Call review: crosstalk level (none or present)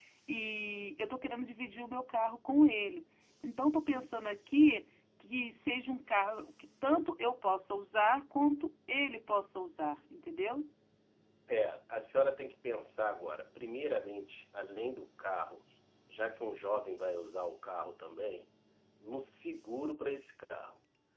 none